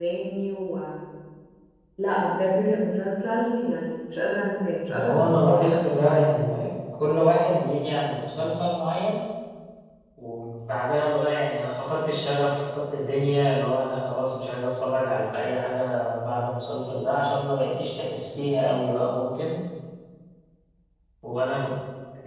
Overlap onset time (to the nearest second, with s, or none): 5 s